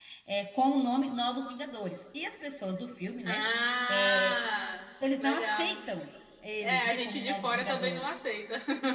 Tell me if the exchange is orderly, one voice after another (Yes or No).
No